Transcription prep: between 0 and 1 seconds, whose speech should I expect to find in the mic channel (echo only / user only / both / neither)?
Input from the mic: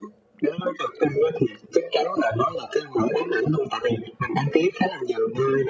echo only